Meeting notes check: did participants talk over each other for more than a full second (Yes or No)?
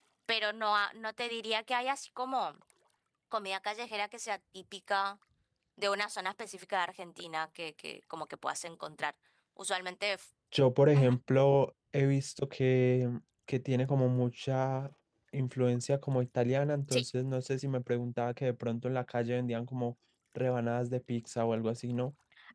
No